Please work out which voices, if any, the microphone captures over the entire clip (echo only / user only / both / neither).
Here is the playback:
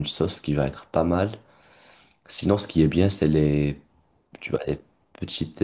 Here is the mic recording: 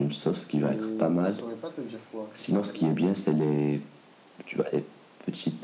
both